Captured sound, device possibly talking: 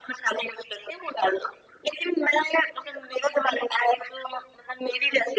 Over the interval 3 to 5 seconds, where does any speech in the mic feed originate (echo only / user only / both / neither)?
echo only